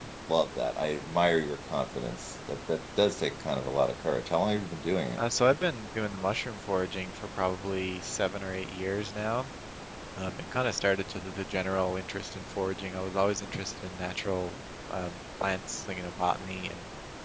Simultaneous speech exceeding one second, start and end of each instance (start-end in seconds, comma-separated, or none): none